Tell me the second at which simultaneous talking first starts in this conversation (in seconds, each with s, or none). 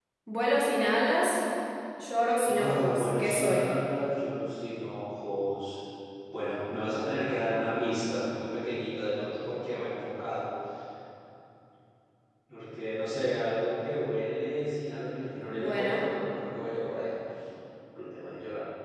2.5 s